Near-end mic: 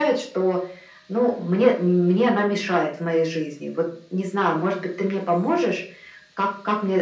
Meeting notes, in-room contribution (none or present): none